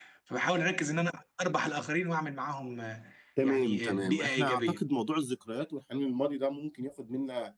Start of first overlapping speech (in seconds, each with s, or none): 3.4 s